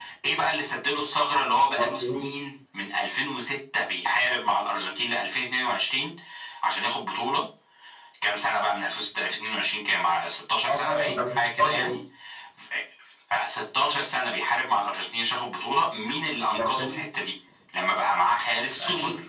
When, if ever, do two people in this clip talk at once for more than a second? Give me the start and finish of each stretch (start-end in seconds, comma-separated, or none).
10.7-11.9